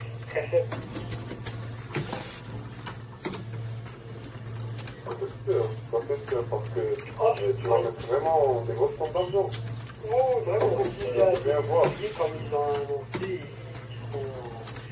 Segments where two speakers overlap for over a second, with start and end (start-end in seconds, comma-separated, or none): 10.5-11.9